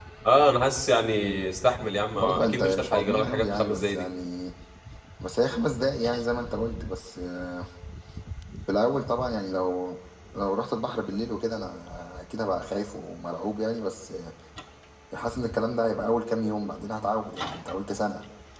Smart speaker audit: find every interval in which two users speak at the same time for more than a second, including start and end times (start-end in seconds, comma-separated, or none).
2.1-4.1